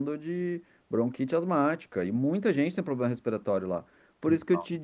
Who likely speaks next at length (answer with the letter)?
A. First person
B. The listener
A